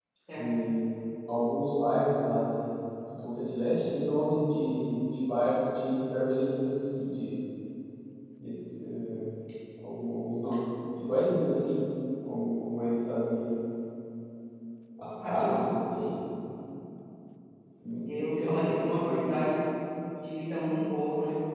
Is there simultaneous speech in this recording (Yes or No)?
Yes